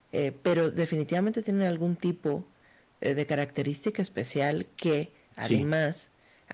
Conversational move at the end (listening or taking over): listening